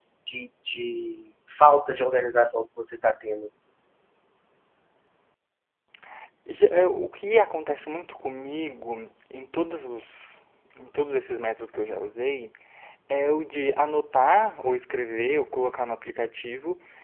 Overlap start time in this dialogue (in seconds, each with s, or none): none